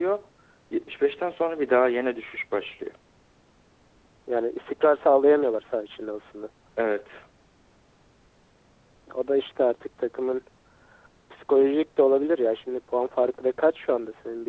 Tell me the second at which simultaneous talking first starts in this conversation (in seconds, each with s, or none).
none